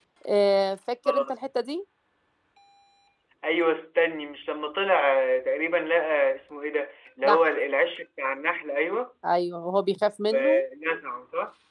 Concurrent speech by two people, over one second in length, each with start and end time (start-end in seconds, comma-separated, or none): none